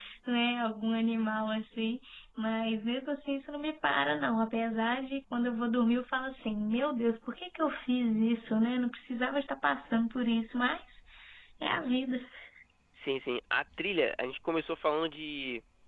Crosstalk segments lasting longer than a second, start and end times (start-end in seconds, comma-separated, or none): none